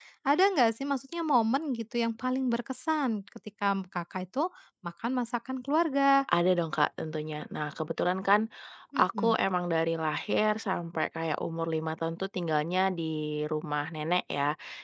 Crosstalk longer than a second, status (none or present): none